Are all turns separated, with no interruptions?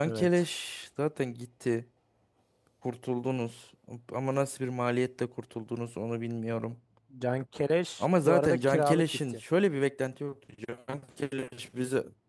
No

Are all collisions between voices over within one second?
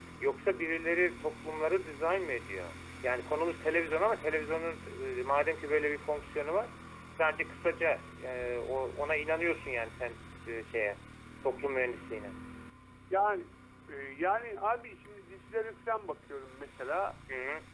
Yes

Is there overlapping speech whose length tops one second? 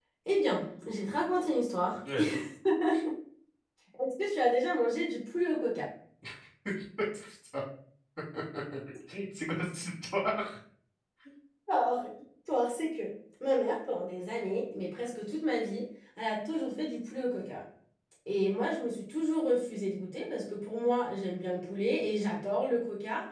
No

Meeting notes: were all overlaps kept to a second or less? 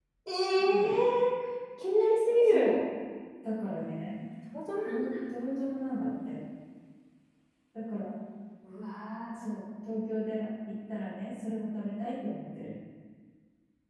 Yes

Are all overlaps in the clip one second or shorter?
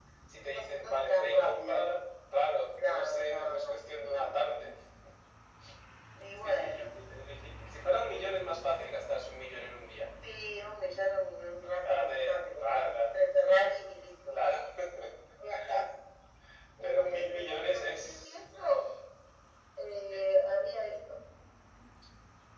No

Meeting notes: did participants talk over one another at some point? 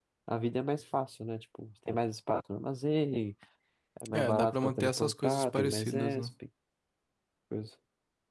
Yes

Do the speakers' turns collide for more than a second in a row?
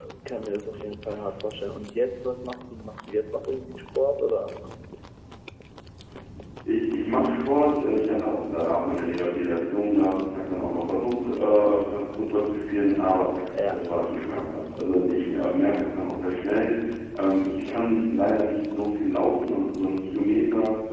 No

